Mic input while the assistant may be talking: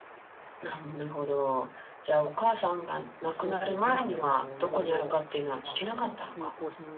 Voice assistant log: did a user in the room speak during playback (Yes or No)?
Yes